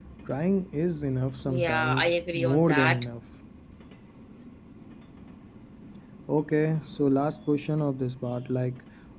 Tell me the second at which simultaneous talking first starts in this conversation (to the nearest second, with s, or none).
1 s